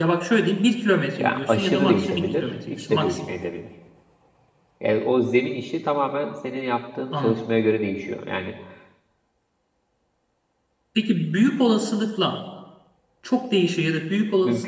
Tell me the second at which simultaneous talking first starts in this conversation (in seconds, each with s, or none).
1.2 s